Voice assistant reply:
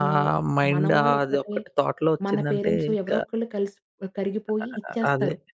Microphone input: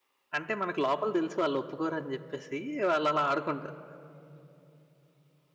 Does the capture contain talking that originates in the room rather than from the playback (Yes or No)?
Yes